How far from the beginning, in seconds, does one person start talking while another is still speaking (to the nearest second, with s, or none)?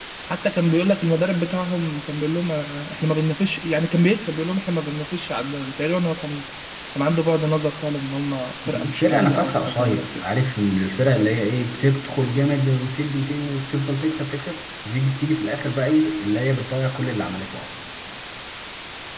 9 s